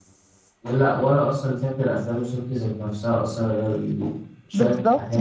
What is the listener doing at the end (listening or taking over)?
taking over